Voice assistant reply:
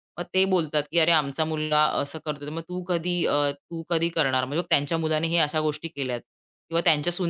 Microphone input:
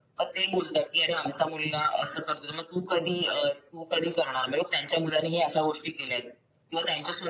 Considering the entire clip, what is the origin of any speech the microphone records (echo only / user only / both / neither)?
echo only